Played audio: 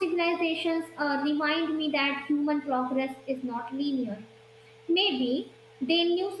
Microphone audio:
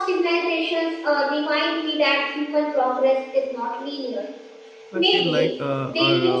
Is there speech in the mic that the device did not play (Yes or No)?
Yes